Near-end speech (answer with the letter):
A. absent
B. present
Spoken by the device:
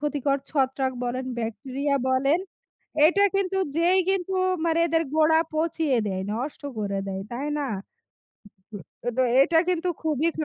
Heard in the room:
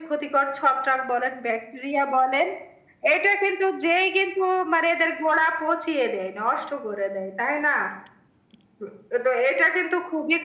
A